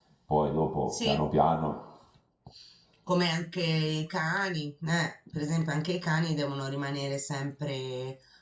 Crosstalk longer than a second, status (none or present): none